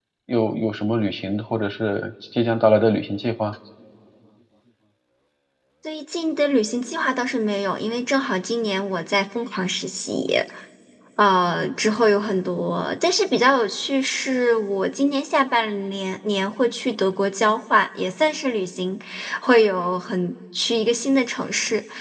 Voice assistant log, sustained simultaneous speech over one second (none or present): none